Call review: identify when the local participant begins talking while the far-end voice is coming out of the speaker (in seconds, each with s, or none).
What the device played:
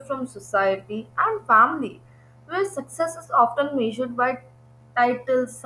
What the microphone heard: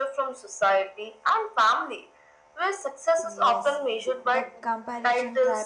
3.2 s